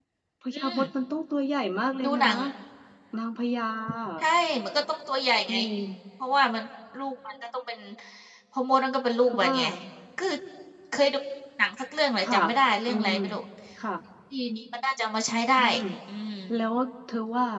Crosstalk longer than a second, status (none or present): none